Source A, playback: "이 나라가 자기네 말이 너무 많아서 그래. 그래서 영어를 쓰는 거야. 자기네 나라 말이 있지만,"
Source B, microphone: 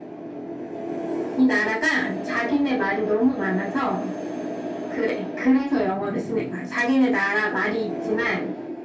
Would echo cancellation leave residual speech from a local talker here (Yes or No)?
No